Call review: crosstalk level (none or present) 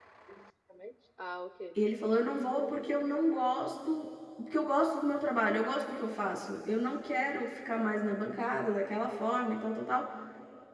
none